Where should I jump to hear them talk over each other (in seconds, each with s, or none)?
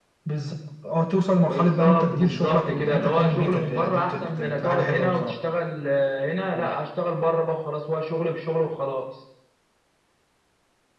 1.4 s